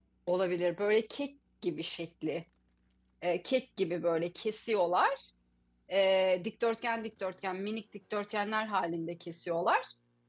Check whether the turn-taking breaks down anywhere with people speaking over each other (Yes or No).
No